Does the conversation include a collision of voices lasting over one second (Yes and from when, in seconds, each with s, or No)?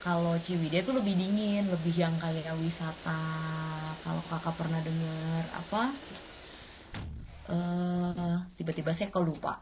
No